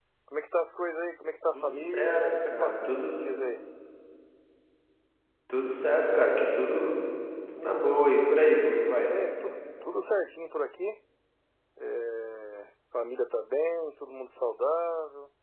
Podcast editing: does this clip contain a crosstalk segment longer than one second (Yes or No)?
Yes